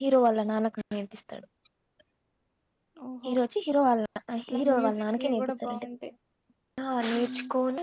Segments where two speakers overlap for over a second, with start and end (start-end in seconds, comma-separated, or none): 4.5-5.9